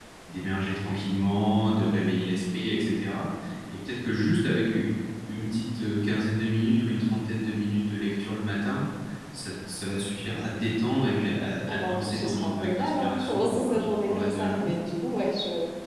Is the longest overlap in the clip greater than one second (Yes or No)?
Yes